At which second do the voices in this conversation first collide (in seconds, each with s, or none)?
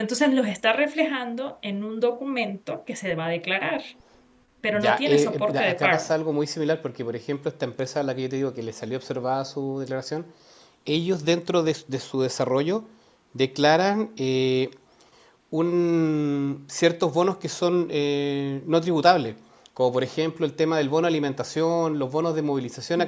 4.7 s